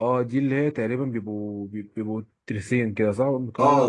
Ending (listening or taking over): taking over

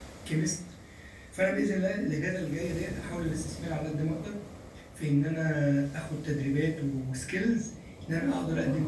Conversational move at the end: listening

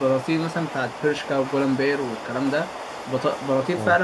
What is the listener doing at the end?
listening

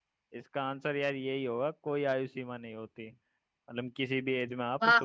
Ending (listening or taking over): listening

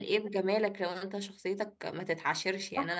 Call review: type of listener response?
taking over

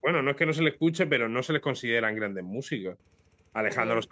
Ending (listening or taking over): listening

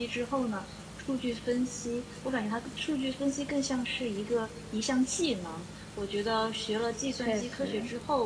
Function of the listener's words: listening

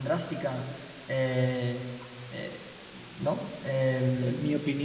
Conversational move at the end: taking over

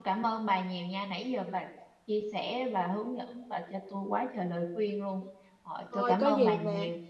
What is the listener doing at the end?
taking over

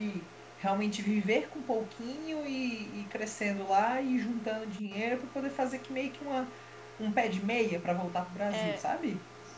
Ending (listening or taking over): taking over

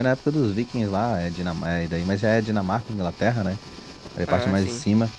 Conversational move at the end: listening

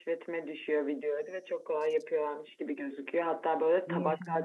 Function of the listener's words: listening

